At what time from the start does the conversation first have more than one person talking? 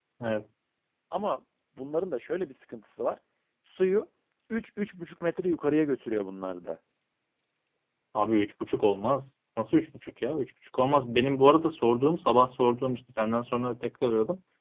none

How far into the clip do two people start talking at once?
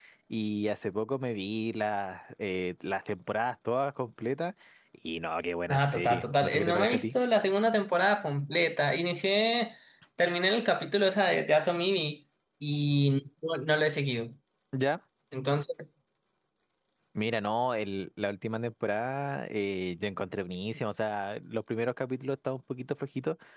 5.7 s

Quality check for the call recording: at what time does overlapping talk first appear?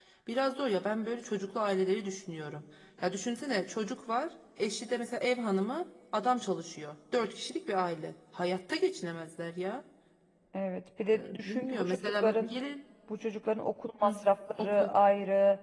11.1 s

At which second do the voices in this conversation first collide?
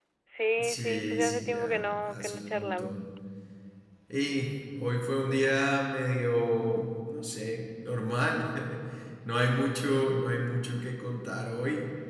0.6 s

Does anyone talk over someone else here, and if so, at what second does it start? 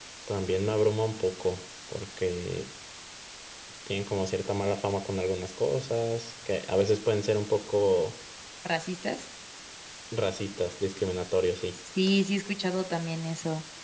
none

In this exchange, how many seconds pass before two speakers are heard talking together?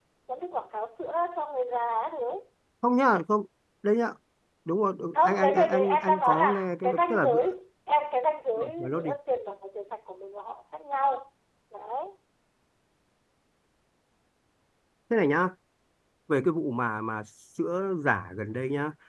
5.1 s

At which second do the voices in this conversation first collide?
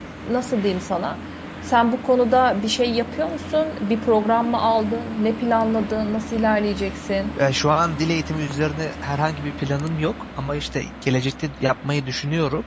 none

